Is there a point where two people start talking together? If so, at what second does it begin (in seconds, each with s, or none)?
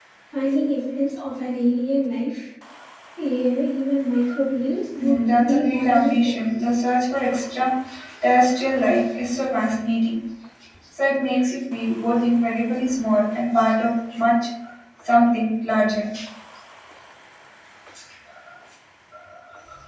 5.0 s